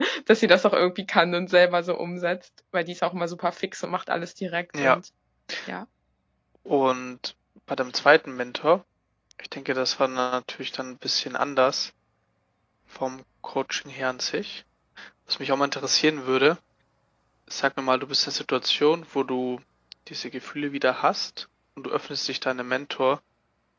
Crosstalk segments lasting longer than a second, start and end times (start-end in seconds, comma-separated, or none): none